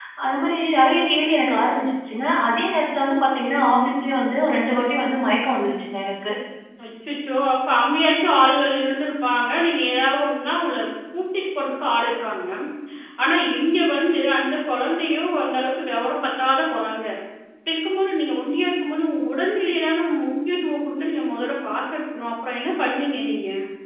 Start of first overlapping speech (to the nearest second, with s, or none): none